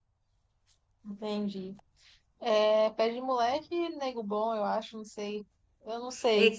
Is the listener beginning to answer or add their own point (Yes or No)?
Yes